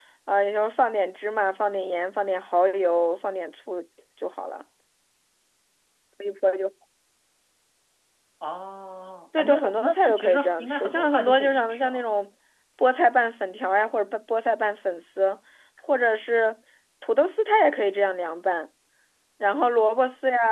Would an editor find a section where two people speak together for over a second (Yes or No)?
Yes